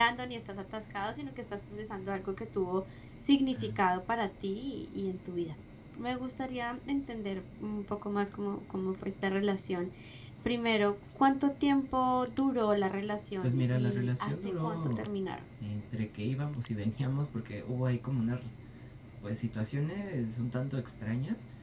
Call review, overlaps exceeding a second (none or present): present